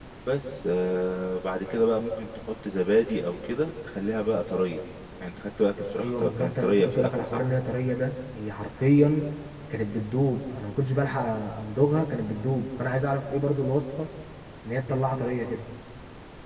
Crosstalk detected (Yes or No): Yes